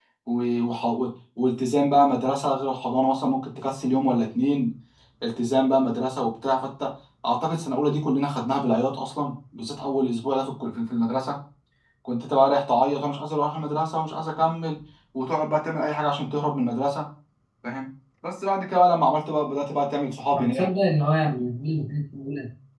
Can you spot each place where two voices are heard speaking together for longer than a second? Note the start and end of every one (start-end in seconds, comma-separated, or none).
none